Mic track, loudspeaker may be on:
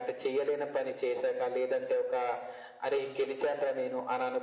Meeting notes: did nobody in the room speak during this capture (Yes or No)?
Yes